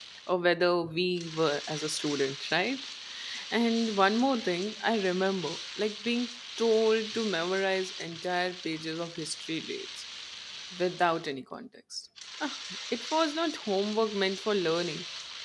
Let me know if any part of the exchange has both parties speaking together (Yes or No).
No